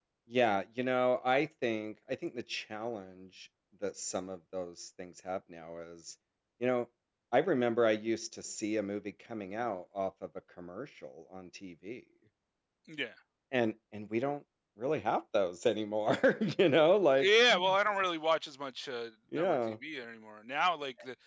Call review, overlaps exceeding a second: none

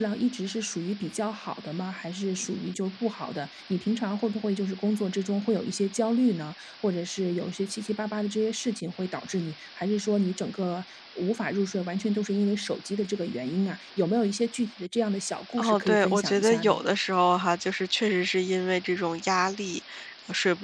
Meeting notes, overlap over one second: present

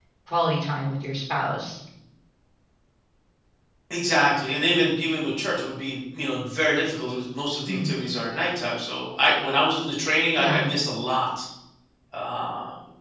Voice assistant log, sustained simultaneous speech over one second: none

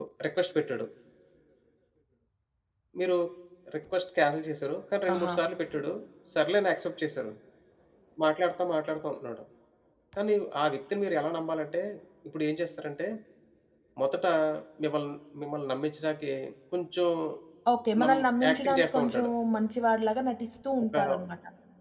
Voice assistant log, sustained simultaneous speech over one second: present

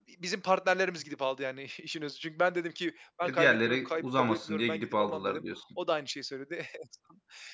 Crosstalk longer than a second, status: present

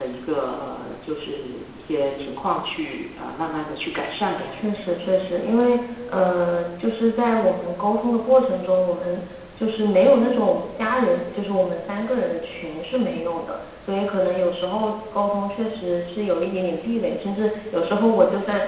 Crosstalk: none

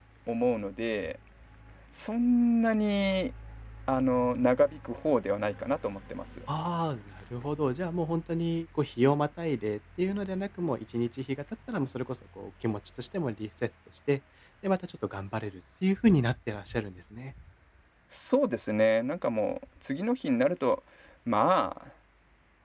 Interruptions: none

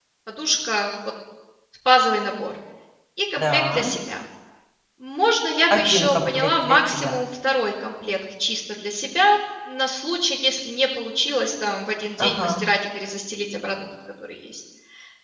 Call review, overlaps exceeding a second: present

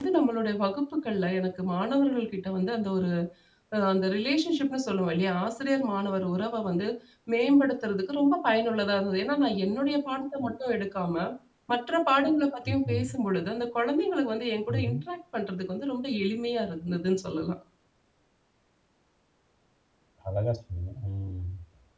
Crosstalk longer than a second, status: none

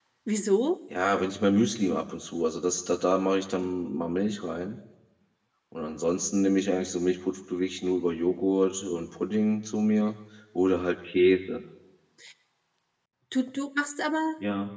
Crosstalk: none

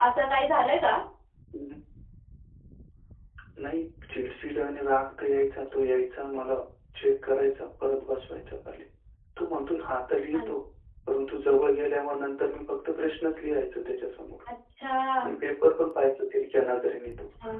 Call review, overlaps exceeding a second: none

